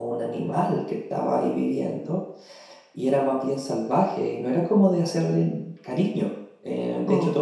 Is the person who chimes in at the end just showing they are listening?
Yes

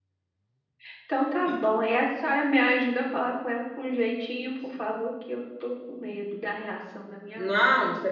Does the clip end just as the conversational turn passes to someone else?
Yes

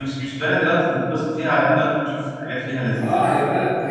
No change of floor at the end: No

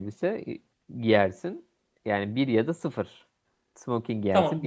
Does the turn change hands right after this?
Yes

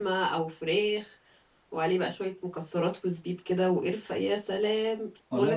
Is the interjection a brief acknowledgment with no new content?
No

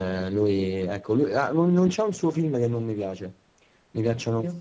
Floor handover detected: No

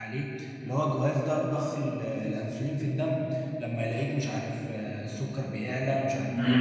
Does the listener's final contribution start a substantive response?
Yes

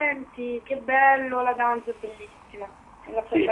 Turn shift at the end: Yes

